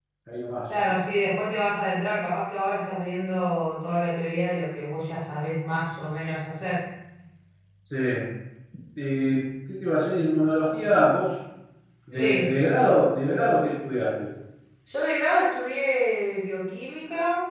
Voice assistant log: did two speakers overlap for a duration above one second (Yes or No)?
No